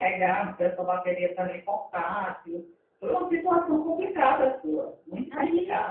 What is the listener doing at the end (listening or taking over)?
taking over